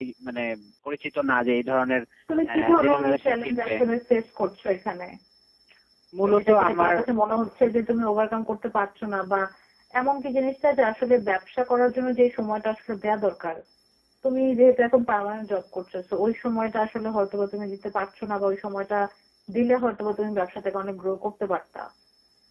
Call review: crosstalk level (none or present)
present